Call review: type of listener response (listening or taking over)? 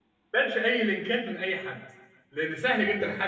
listening